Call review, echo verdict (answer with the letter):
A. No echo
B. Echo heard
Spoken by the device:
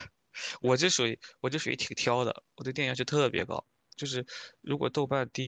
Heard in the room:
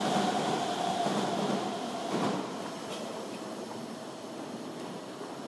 A